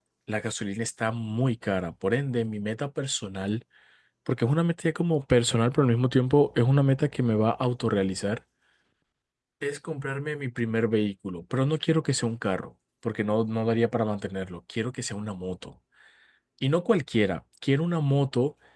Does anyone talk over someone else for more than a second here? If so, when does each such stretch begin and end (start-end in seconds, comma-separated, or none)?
none